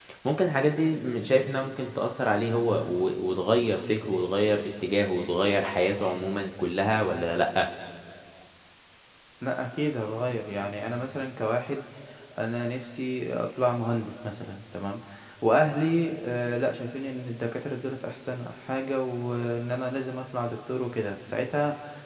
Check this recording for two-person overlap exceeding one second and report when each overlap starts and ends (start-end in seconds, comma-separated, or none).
none